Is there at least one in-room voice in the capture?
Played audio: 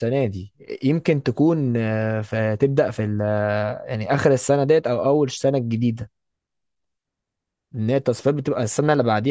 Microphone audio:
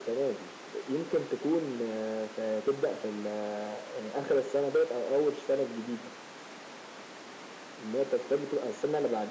No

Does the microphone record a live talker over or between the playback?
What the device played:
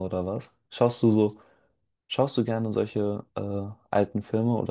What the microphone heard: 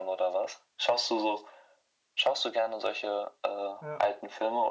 Yes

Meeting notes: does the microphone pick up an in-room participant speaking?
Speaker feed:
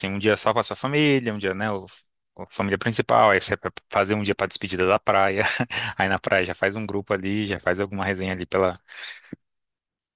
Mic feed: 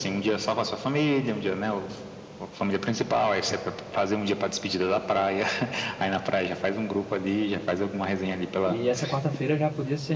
Yes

